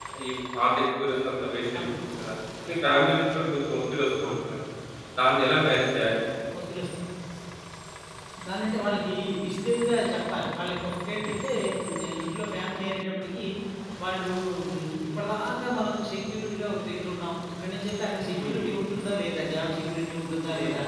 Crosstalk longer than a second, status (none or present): none